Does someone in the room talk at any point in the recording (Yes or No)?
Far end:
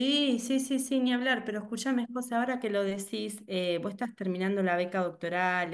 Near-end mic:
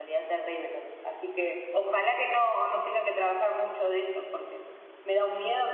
Yes